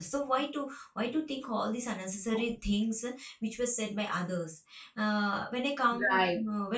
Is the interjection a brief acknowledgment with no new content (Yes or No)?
Yes